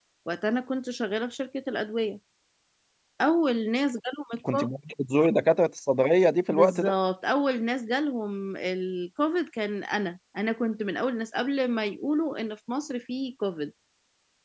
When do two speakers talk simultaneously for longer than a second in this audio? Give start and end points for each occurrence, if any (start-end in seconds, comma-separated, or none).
none